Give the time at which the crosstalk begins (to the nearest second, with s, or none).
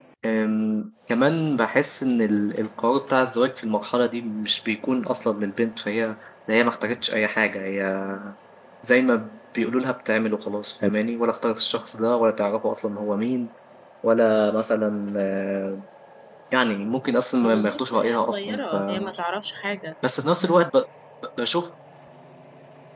17 s